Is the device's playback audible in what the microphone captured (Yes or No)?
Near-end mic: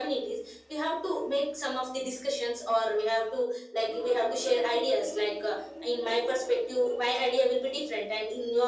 Yes